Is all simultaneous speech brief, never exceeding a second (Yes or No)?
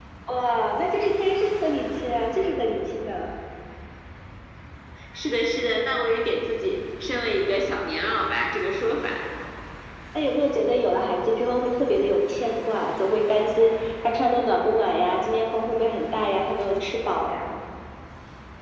Yes